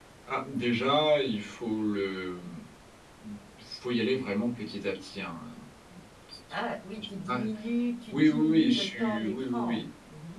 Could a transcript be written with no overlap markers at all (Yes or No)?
No